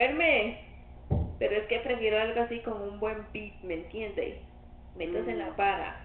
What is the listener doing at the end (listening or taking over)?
taking over